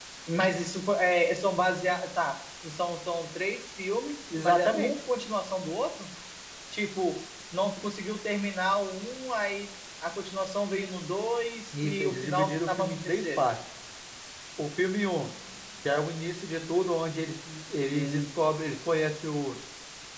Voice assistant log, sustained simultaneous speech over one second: present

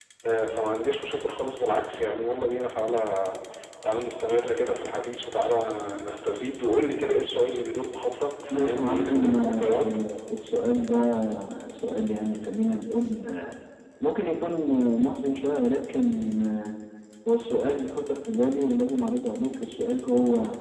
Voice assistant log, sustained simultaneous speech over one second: present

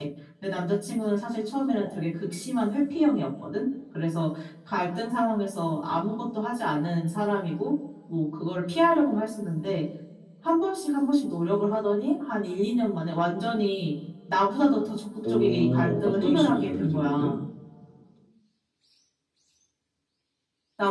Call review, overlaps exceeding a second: present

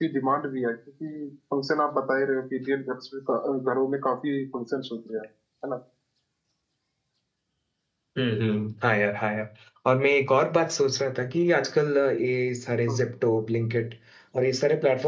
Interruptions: none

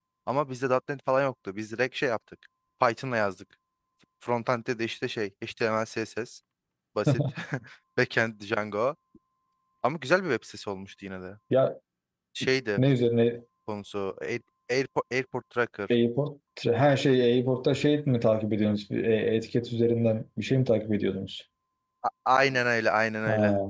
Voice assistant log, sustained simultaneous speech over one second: none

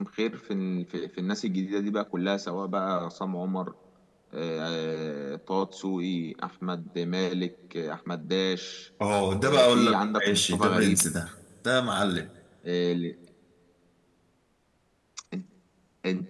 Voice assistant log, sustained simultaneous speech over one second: present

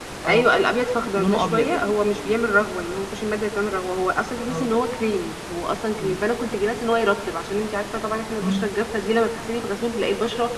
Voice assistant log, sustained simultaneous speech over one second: present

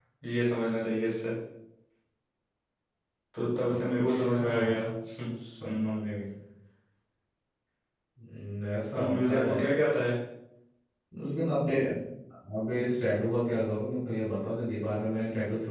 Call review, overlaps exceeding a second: present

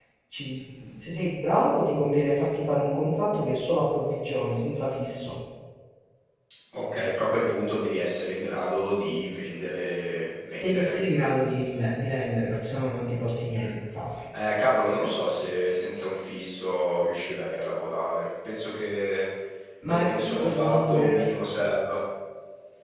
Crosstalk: present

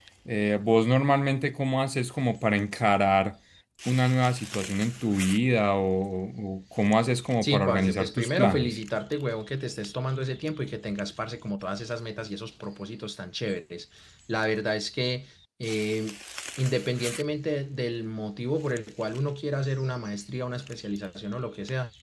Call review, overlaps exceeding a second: present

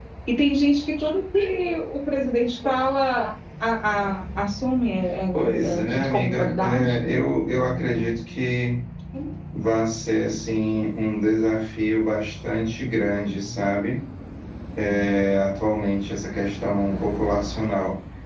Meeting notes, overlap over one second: present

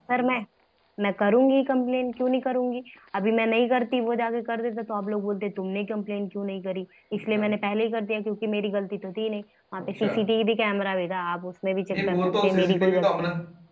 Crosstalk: present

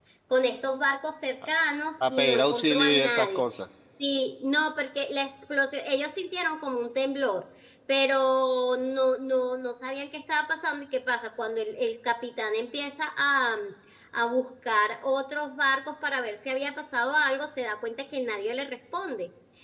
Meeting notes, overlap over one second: present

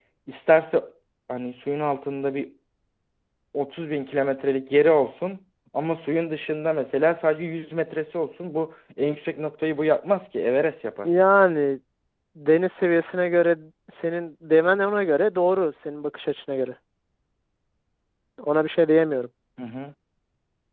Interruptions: none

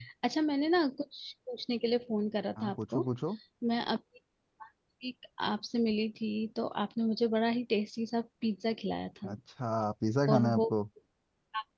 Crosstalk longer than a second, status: none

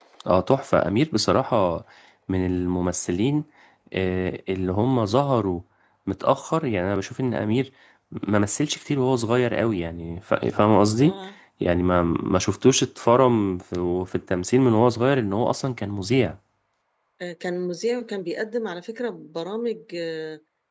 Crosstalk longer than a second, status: none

